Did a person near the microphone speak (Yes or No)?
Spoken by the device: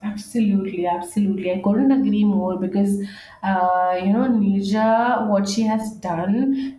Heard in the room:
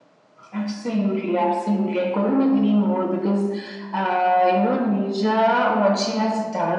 No